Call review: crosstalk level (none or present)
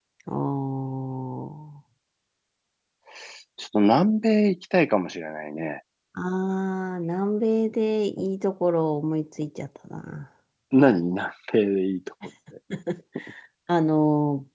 none